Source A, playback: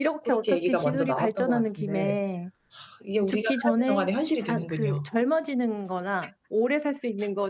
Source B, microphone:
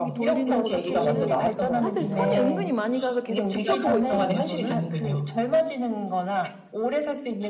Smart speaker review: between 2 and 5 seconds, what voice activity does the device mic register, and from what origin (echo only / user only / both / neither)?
both